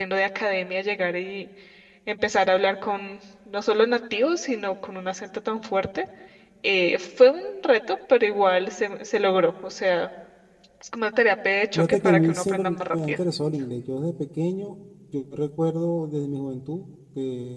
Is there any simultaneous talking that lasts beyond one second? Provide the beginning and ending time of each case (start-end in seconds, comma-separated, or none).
11.8-13.2